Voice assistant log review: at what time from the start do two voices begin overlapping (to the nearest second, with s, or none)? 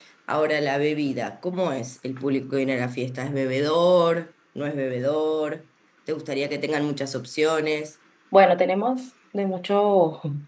none